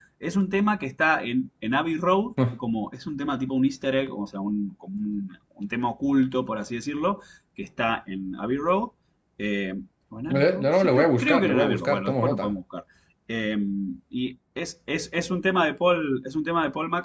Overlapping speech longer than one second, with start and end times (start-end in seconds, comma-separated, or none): 10.3-12.5